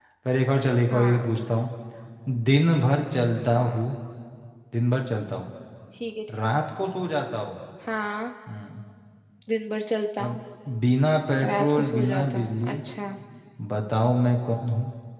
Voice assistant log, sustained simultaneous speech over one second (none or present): present